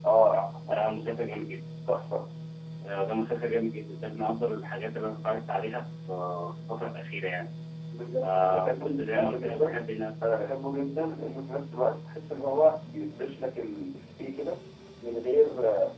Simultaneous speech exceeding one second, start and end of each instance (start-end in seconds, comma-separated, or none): 8.2-9.8